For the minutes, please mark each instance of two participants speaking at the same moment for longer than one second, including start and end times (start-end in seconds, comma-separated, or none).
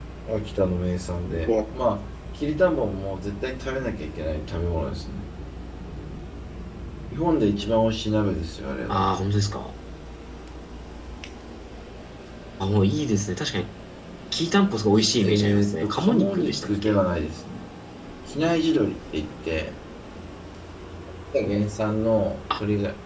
15.0-17.0